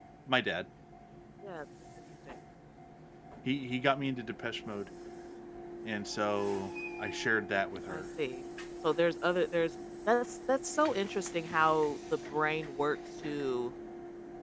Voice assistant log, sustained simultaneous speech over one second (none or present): none